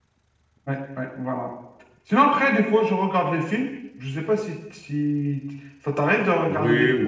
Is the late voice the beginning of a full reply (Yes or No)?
Yes